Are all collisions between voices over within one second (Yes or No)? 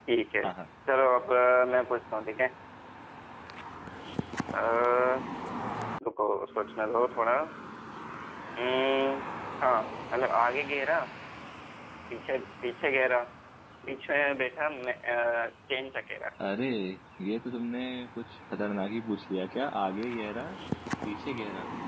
Yes